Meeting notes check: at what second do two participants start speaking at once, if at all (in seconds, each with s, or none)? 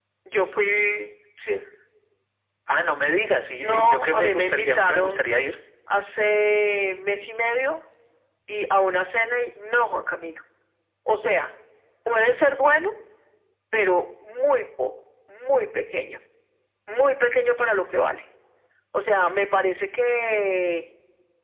3.6 s